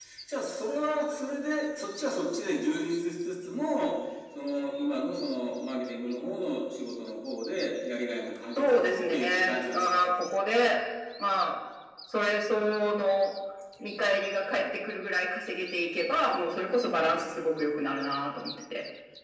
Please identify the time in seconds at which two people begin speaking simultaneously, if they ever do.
8.6 s

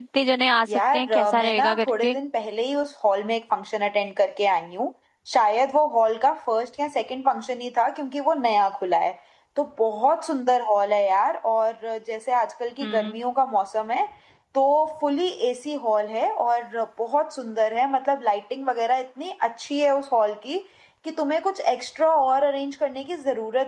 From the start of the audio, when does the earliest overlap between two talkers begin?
0.7 s

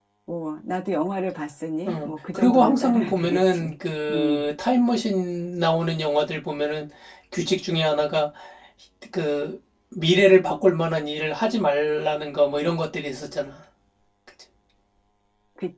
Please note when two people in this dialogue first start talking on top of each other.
1.9 s

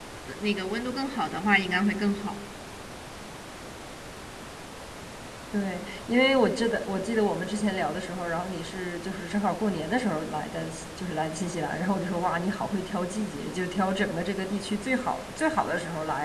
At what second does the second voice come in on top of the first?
none

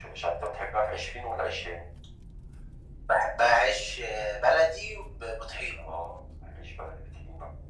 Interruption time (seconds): none

